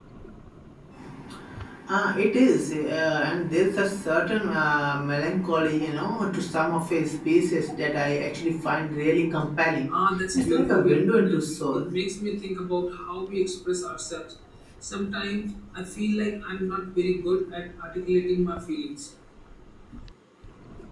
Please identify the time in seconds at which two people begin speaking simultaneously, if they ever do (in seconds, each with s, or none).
10.3 s